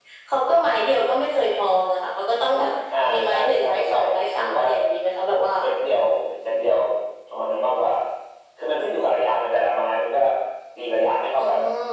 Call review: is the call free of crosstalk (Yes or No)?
No